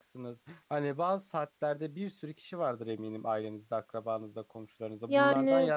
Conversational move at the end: listening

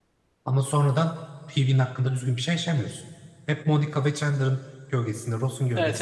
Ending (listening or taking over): taking over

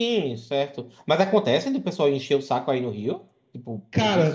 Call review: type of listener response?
taking over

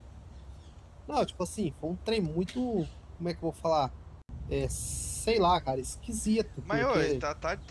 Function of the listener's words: taking over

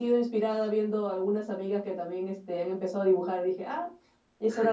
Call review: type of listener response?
taking over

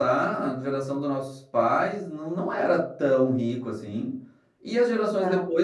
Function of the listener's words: listening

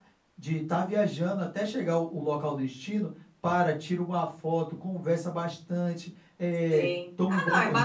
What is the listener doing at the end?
taking over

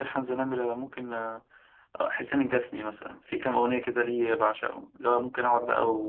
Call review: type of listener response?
listening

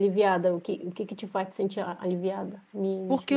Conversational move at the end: taking over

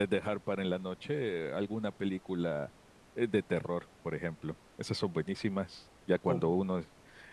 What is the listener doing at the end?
listening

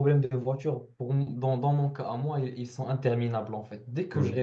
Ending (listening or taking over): listening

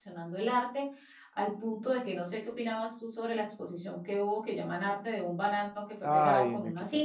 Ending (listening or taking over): taking over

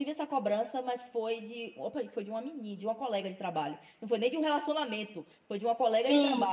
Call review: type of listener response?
listening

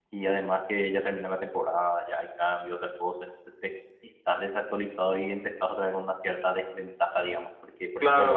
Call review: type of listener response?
taking over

